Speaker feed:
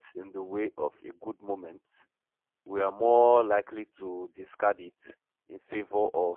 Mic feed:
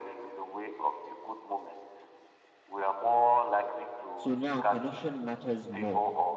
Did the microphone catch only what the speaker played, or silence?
No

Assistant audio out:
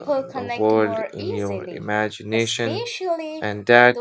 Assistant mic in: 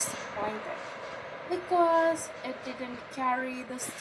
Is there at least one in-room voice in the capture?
Yes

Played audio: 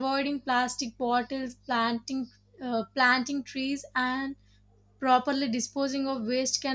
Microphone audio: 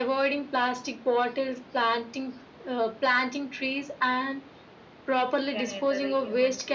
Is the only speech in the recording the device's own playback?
No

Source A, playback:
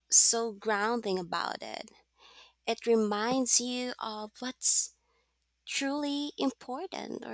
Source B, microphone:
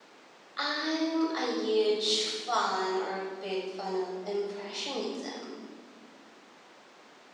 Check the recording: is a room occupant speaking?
Yes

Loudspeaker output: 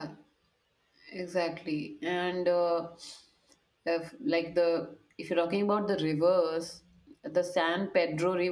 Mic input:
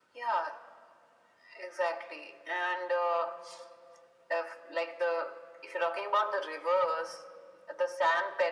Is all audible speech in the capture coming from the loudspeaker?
Yes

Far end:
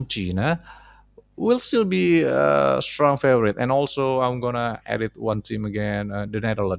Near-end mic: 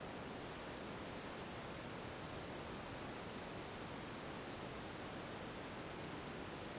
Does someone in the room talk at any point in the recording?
No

